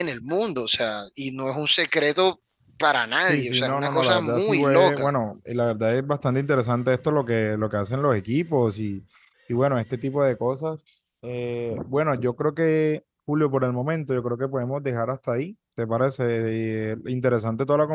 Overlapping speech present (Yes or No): Yes